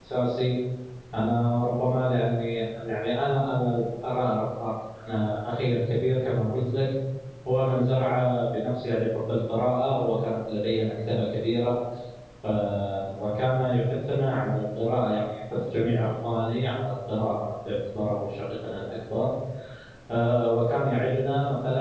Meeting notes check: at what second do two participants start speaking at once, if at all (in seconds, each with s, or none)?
none